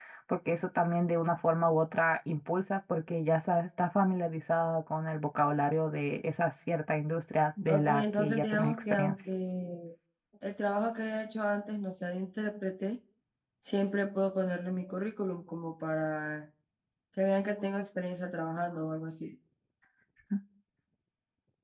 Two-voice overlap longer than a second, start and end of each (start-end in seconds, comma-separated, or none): 7.7-9.1